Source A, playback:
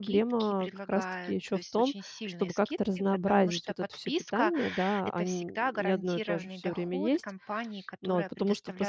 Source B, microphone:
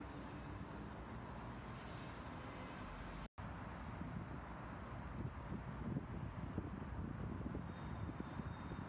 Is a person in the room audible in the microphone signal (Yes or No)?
No